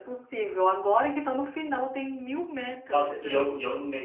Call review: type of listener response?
taking over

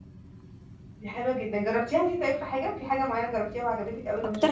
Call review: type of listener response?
taking over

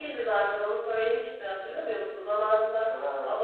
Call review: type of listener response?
listening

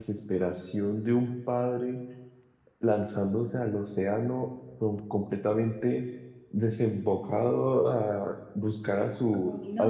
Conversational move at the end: taking over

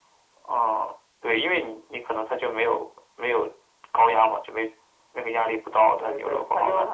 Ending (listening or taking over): taking over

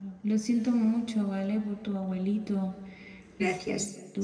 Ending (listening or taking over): listening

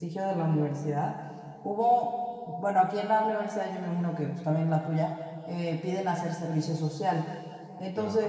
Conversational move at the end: listening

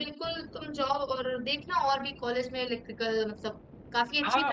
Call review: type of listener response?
taking over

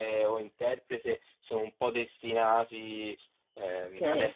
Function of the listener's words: listening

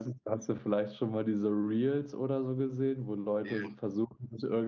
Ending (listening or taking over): listening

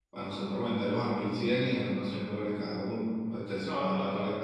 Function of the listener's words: taking over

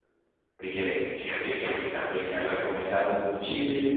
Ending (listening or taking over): taking over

